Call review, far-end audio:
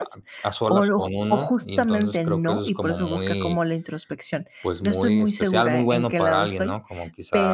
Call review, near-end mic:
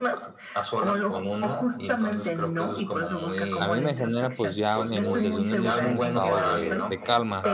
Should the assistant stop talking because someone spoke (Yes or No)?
Yes